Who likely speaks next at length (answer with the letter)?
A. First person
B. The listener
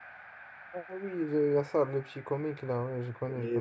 B